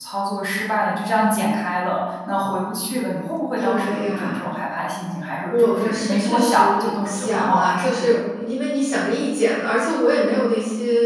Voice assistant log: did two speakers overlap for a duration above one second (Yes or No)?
Yes